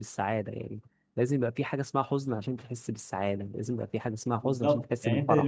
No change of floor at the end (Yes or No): No